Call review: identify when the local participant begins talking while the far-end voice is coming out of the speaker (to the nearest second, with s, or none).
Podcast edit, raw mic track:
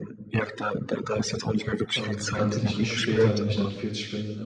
2 s